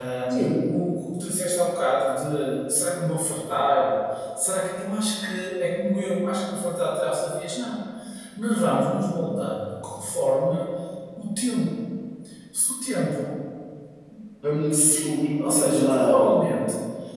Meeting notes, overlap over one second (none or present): present